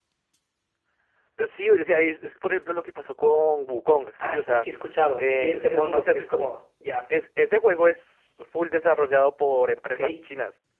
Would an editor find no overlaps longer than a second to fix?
No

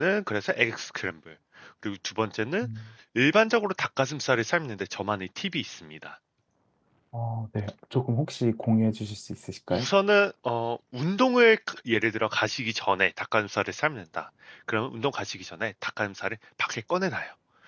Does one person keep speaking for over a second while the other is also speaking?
No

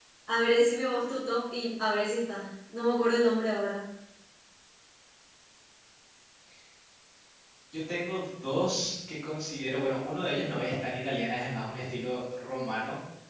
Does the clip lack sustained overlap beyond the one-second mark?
Yes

